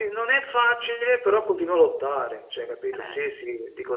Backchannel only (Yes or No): Yes